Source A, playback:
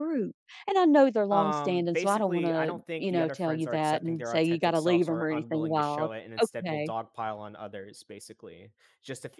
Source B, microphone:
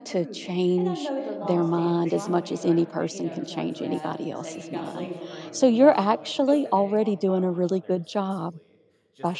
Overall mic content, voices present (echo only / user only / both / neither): both